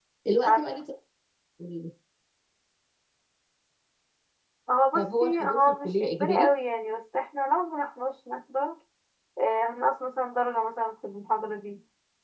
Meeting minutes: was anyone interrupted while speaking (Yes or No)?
Yes